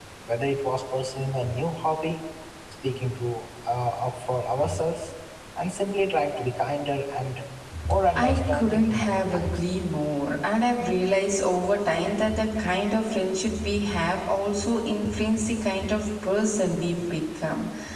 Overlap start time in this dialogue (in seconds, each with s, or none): 8.2 s